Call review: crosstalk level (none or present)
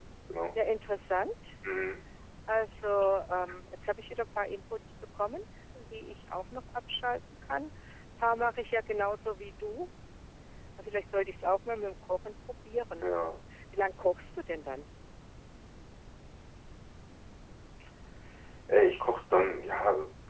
none